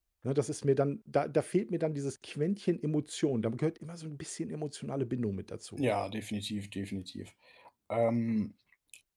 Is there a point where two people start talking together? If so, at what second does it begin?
none

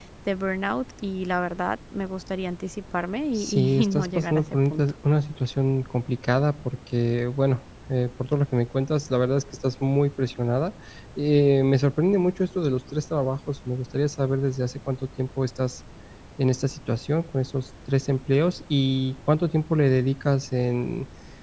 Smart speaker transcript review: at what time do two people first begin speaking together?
3.4 s

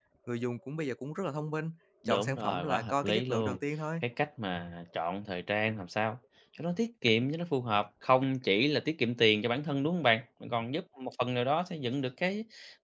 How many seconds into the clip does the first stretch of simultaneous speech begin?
2.0 s

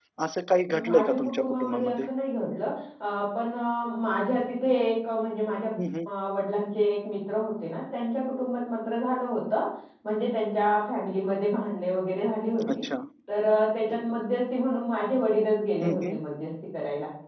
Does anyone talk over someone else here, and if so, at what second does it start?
0.8 s

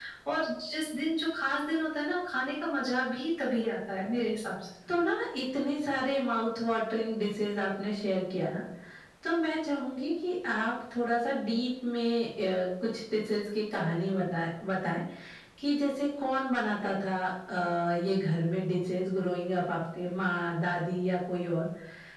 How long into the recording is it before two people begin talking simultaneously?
none

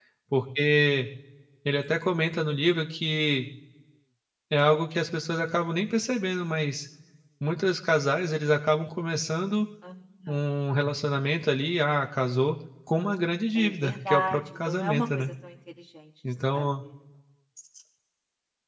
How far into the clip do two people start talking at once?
13.6 s

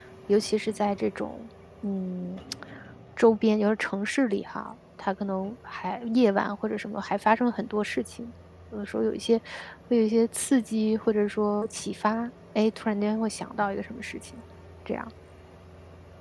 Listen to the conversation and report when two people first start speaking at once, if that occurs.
none

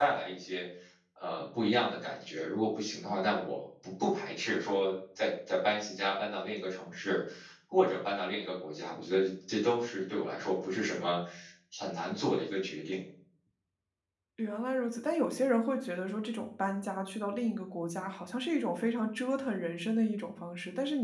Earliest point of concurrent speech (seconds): none

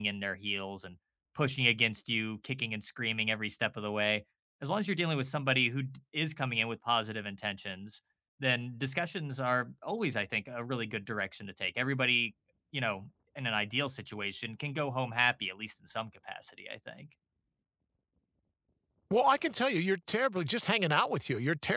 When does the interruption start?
none

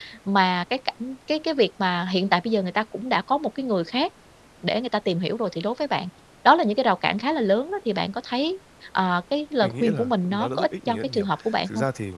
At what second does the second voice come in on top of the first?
9.6 s

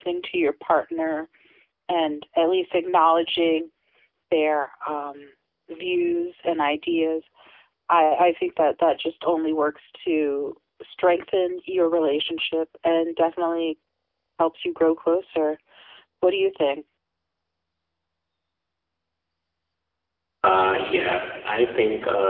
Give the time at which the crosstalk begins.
none

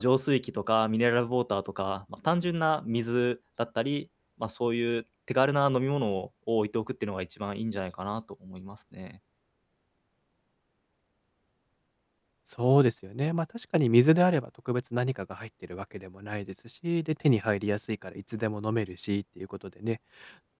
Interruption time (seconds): none

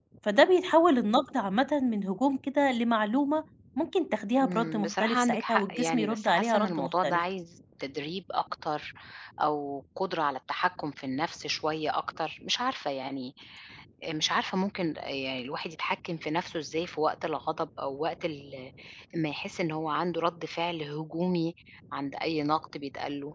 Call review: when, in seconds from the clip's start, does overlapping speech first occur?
4.4 s

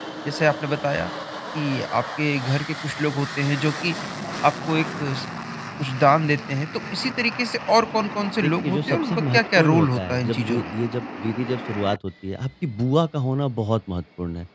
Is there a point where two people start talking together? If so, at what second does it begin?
8.4 s

